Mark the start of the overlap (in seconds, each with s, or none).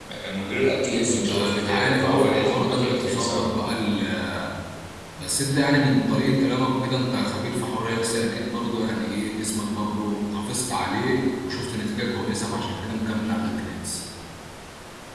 1.0 s